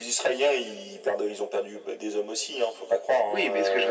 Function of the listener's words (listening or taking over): taking over